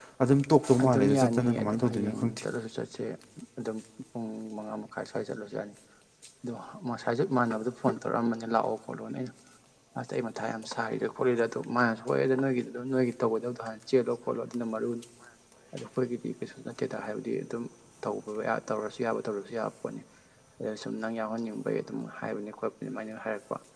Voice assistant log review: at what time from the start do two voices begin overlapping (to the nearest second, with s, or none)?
1 s